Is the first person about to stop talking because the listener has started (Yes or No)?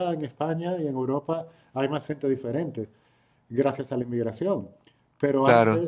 No